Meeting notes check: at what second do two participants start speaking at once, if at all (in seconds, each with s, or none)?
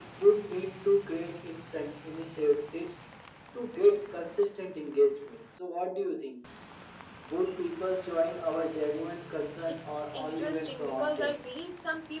9.8 s